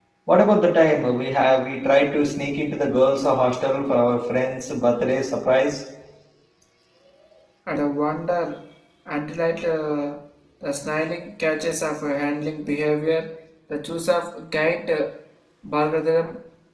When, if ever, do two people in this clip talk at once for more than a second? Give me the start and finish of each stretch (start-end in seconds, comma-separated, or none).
none